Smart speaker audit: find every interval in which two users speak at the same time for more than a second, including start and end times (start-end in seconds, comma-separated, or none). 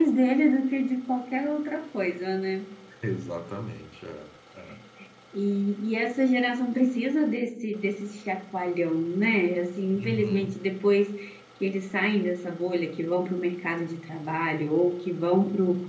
none